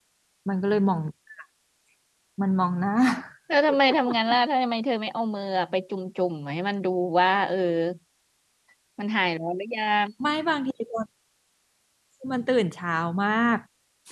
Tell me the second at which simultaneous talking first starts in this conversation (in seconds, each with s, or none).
none